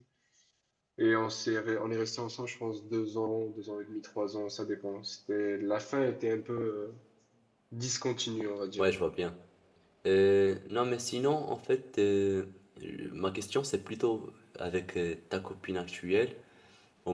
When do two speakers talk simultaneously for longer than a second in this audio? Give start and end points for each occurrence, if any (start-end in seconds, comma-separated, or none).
none